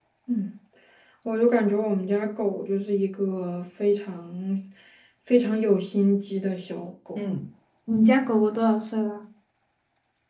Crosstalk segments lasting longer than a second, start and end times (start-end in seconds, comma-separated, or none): none